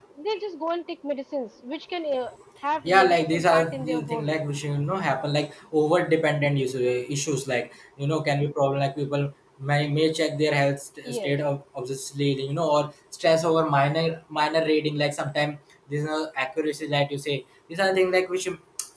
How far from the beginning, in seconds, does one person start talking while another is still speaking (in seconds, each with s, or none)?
2.8 s